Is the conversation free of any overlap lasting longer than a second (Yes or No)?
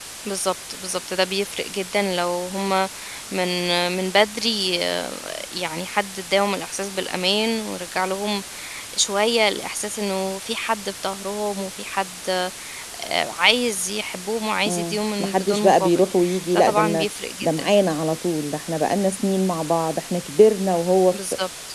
No